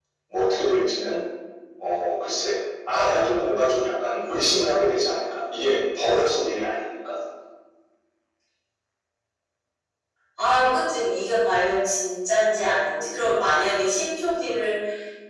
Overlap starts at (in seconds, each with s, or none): none